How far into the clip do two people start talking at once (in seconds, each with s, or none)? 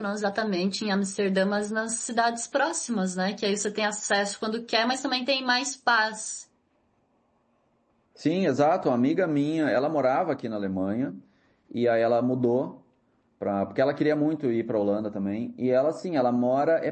none